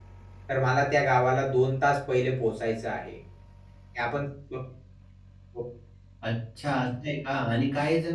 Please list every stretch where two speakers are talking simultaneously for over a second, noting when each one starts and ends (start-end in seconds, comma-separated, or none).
none